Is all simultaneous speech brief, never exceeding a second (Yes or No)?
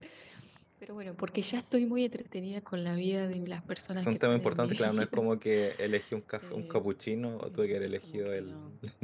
No